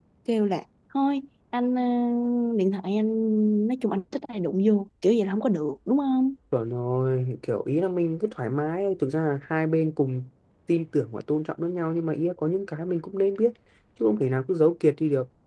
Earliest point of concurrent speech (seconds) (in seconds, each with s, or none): none